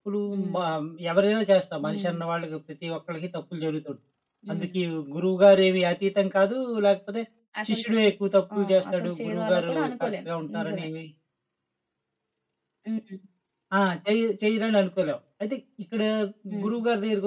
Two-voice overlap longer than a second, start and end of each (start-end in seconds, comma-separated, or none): 8.6-10.8